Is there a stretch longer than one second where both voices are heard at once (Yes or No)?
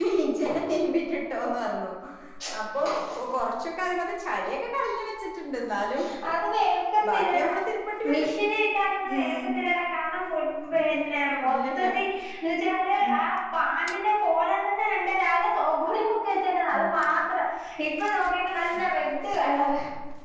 No